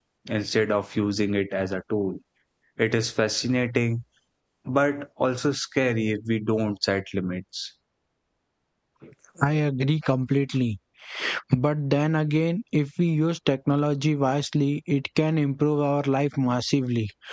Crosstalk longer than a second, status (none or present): none